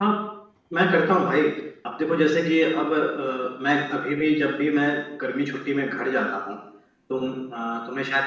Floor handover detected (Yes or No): No